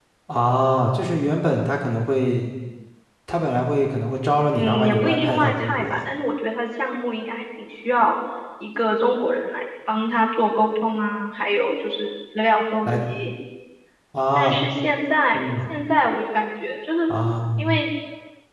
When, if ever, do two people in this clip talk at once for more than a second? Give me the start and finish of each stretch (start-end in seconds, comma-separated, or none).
4.5-6.0